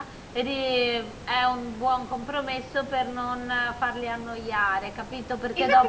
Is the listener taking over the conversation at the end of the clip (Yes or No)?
Yes